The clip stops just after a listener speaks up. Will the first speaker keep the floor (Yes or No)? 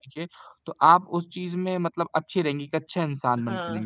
No